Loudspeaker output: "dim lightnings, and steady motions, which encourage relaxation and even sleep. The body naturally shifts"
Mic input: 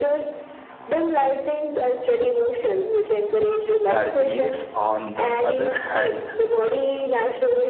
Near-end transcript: Darkness, on the other hand,

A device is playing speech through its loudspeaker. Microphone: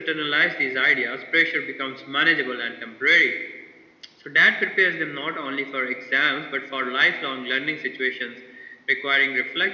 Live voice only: none

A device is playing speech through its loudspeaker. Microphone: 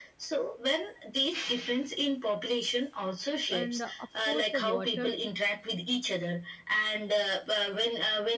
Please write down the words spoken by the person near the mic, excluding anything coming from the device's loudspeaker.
and uh, of course the water

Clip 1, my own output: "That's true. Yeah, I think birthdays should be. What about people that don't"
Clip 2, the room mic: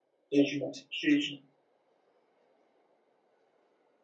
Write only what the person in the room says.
it should be so it should

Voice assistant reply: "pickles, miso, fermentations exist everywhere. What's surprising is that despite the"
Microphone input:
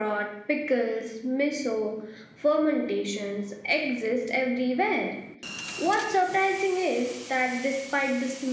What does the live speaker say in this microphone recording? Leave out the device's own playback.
none

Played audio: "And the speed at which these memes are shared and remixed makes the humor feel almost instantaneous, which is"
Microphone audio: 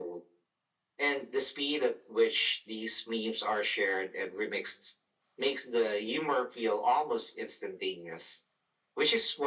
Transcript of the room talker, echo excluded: none

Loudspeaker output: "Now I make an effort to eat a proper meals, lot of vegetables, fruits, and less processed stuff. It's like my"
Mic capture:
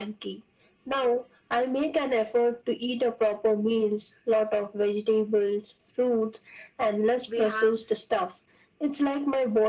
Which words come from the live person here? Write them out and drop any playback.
We have

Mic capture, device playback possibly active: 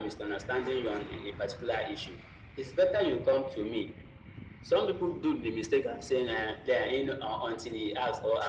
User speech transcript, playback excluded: none

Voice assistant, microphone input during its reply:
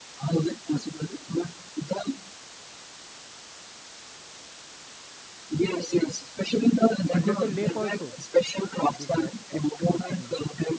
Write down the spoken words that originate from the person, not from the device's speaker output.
Under the lake also? It is a astonishing.

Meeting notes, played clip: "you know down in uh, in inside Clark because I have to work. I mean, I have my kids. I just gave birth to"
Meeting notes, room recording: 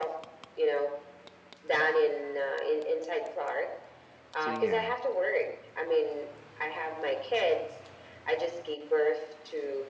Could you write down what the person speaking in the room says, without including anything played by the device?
So yeah,

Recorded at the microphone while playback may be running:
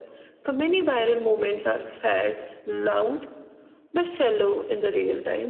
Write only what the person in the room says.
none

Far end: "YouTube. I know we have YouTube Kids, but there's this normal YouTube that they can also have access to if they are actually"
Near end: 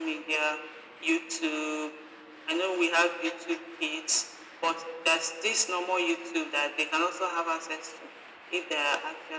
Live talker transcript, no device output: none

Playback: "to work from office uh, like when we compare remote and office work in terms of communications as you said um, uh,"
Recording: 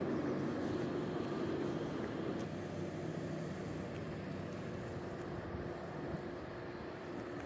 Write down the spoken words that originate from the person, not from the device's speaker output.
none

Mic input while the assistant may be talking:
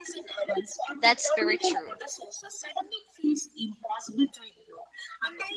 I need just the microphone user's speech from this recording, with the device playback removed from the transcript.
That's very true.

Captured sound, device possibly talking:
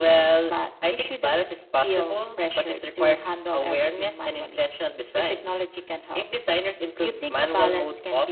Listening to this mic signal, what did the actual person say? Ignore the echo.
none

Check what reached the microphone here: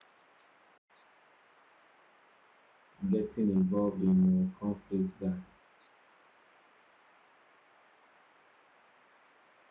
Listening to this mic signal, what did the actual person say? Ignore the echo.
getting involved in uh, conflicts that

